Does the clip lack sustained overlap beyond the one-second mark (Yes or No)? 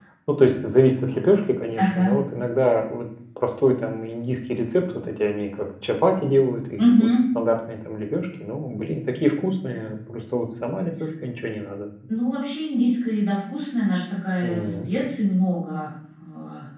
Yes